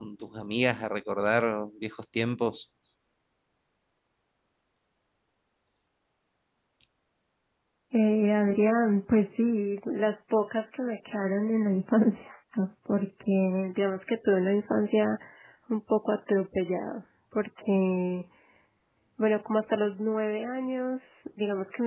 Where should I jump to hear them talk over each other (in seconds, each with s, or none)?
none